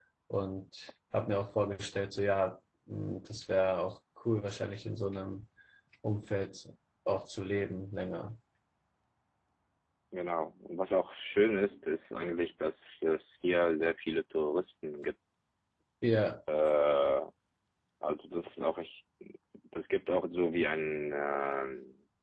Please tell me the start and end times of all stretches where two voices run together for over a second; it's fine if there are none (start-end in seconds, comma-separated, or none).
none